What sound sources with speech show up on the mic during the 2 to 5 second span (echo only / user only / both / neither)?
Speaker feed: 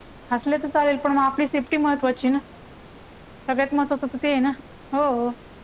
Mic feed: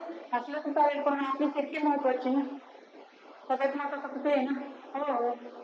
echo only